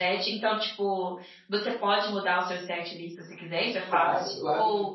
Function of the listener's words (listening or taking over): taking over